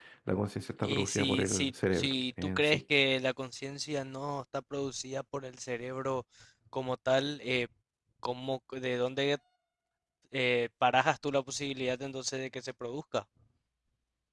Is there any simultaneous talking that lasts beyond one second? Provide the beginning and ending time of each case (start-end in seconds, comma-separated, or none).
0.8-2.8